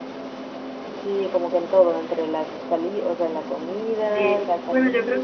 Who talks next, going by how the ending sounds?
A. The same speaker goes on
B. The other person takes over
B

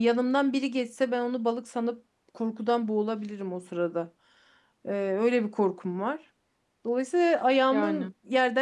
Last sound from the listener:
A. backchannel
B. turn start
A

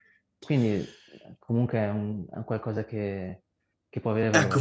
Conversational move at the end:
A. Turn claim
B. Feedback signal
A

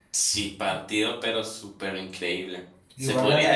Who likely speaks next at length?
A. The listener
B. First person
B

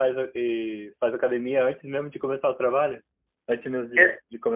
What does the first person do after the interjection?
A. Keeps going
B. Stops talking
B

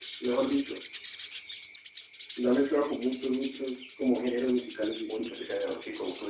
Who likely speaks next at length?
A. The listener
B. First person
A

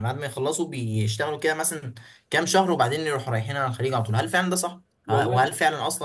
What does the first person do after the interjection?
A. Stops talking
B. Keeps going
B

